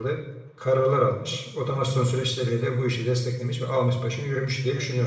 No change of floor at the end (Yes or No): No